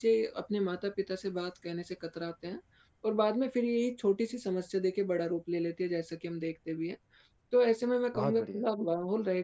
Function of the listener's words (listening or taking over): listening